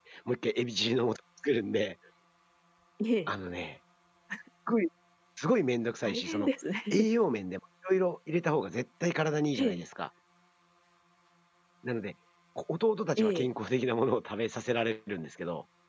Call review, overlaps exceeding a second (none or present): none